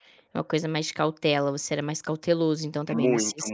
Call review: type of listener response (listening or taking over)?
taking over